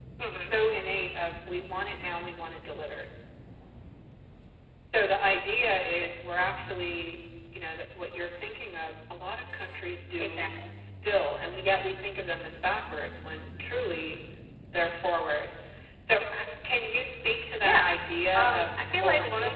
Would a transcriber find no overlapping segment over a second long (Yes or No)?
No